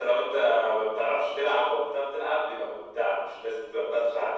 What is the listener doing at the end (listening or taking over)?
listening